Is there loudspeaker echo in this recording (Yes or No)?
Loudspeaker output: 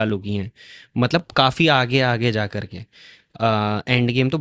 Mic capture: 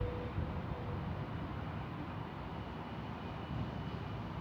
No